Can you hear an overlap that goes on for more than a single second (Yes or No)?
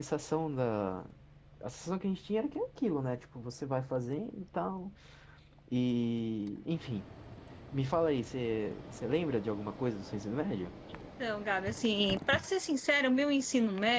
No